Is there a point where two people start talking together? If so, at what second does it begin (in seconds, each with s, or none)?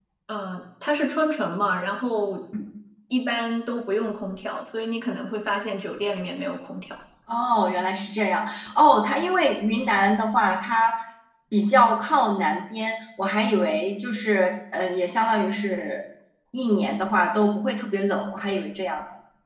none